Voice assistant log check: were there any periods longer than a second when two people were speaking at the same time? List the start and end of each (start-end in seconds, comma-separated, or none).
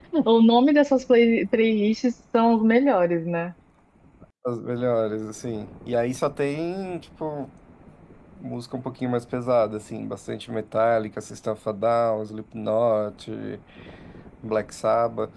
none